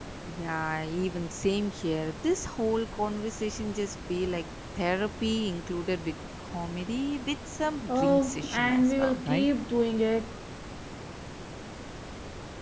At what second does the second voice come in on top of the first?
7.9 s

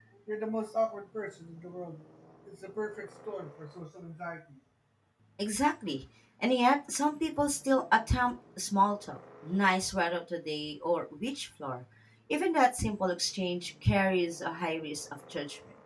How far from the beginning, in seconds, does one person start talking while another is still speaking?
none

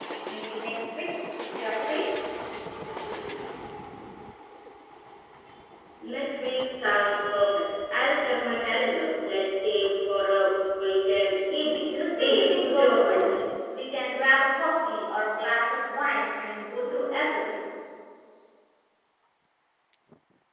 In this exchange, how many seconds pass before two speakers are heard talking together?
12.2 s

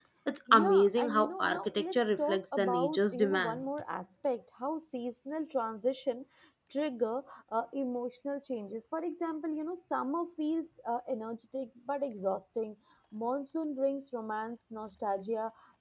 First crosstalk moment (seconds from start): 0.5 s

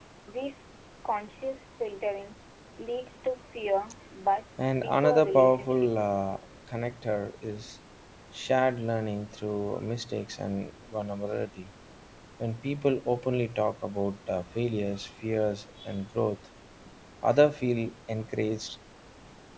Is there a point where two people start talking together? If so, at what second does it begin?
4.8 s

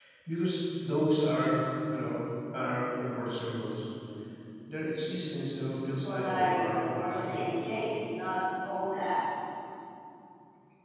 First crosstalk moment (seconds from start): 6.0 s

